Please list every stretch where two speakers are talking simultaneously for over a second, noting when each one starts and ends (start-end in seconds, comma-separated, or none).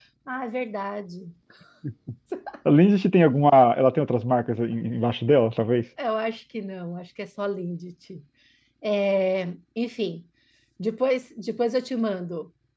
none